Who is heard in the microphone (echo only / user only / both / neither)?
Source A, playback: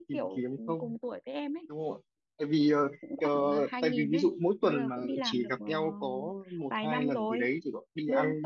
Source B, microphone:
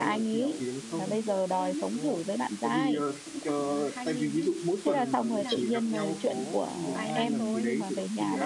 both